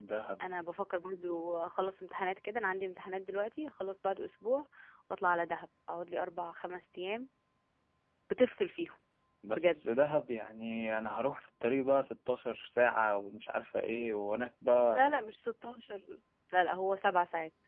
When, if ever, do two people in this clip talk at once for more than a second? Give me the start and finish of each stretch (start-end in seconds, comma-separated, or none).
none